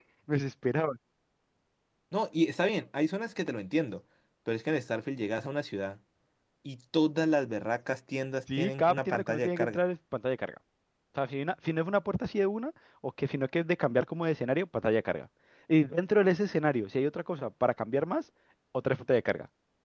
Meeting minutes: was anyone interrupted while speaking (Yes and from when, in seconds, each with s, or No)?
Yes, from 8.5 s